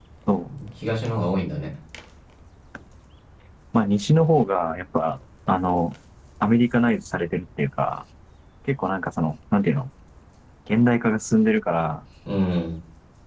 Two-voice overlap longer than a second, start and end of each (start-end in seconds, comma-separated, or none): none